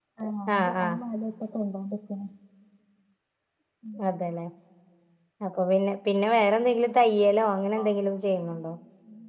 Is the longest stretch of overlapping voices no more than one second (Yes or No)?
Yes